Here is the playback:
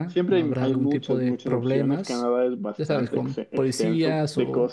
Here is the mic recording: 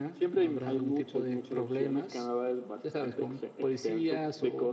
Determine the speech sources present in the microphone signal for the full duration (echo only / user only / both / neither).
echo only